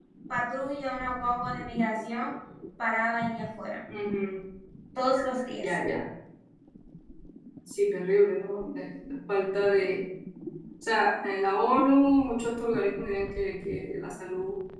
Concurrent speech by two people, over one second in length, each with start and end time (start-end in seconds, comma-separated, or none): none